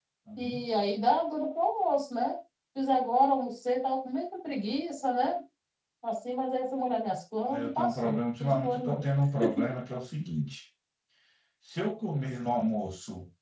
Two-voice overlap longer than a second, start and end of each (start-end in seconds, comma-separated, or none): 7.4-9.0